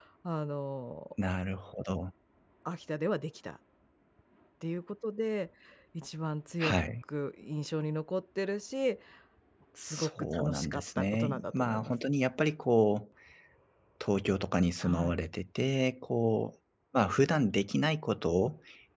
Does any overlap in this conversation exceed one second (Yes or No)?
Yes